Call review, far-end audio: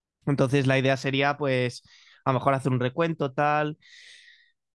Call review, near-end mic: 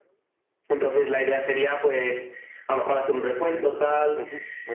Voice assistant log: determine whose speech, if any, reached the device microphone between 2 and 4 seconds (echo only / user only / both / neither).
both